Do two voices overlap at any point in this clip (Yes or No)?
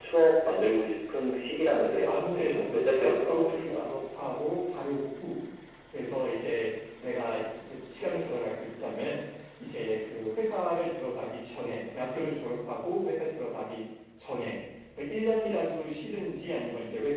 Yes